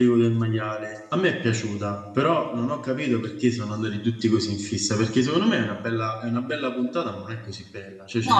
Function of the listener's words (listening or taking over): listening